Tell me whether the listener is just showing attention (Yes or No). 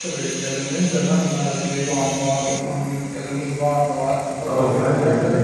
No